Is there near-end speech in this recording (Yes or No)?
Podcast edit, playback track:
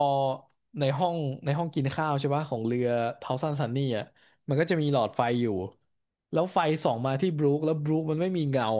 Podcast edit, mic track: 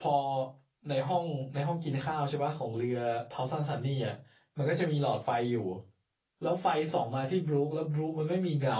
No